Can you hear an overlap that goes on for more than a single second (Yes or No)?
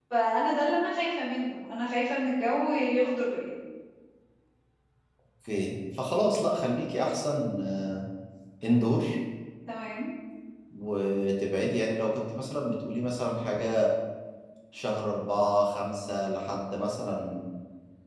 No